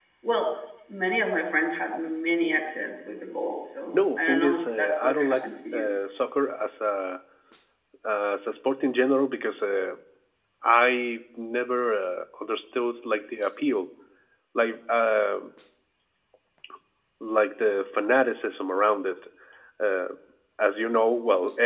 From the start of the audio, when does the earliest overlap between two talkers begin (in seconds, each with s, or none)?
3.9 s